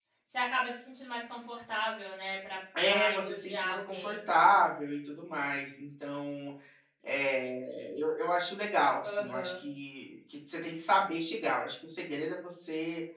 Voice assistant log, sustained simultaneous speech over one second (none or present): present